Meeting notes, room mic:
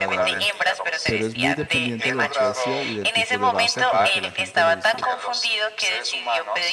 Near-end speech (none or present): present